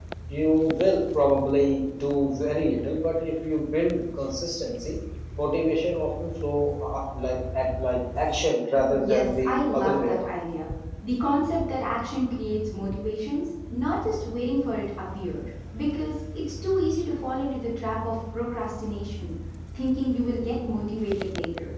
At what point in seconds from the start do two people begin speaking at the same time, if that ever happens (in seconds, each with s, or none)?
8.9 s